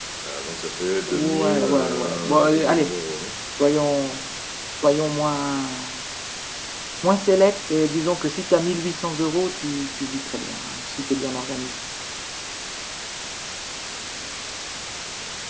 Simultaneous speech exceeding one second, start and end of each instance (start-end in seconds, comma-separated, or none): 1.1-2.9